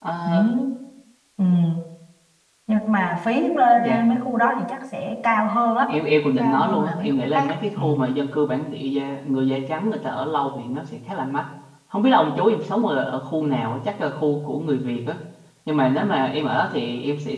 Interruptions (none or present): present